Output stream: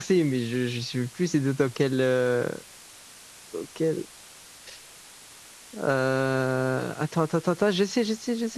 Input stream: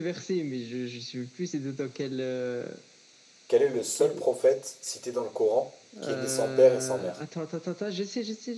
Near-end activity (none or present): present